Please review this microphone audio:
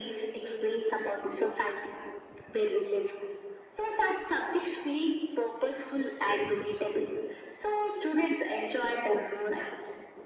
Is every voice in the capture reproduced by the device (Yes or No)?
Yes